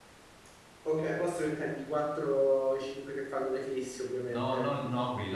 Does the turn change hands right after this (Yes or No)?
Yes